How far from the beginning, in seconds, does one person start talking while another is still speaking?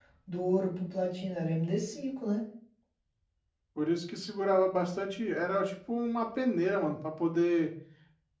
none

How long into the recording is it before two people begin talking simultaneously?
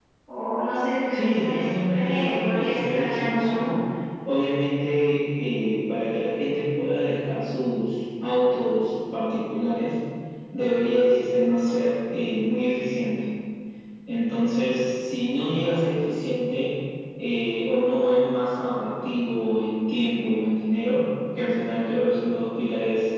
1.1 s

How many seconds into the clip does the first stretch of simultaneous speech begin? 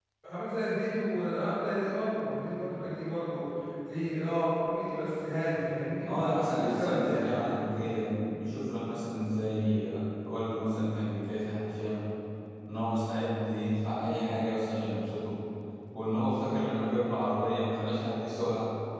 6.0 s

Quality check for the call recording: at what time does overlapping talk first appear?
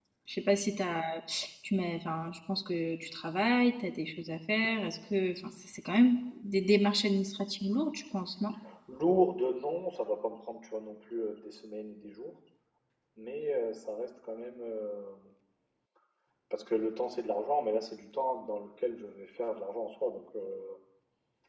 none

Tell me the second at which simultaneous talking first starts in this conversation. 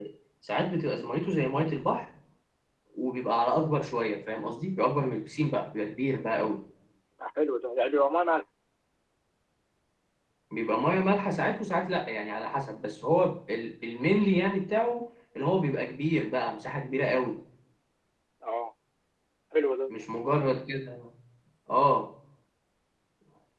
none

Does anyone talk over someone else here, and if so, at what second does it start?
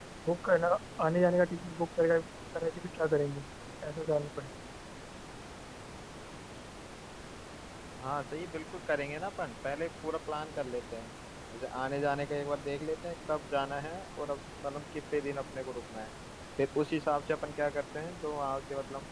none

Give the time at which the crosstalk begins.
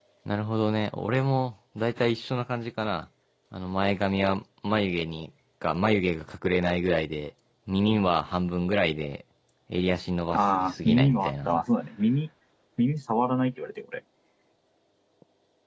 10.3 s

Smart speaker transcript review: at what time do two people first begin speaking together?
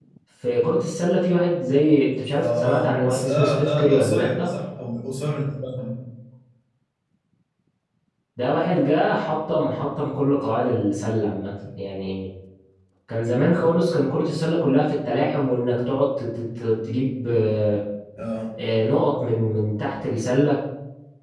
2.4 s

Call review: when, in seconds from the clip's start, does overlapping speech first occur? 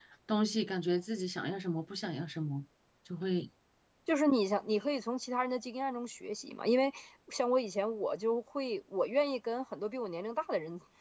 none

